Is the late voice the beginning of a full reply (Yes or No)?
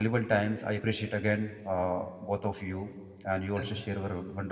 No